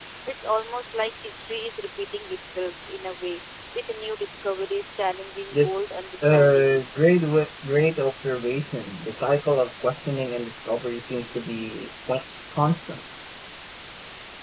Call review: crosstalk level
present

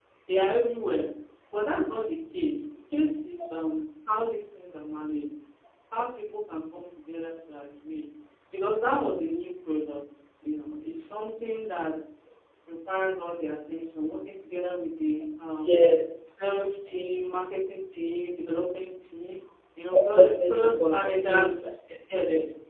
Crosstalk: present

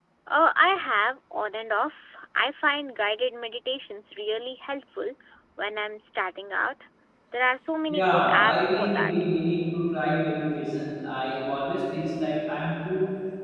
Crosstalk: present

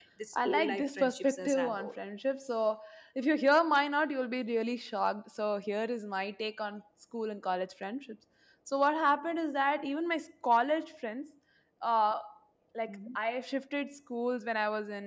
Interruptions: present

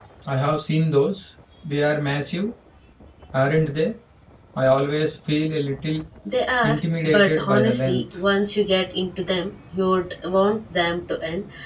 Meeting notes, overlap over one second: present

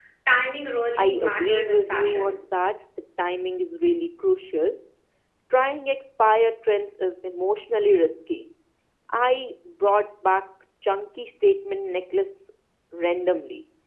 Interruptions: present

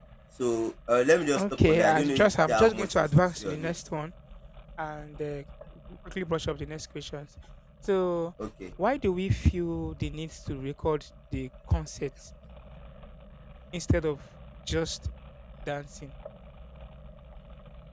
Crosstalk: present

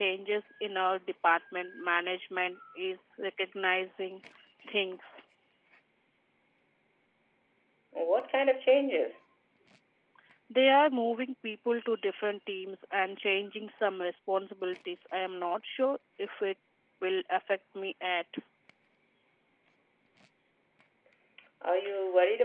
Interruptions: none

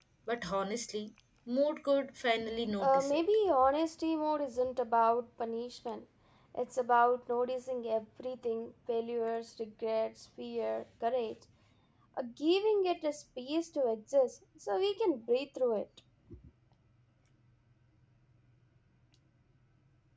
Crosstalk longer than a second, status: none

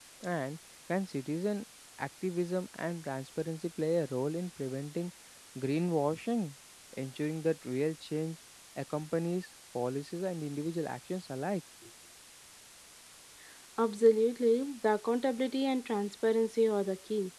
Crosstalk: none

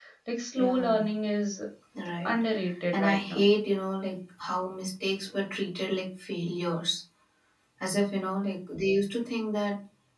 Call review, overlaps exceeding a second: none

